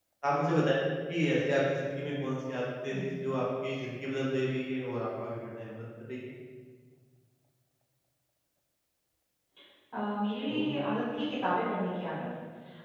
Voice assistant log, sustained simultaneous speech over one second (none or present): none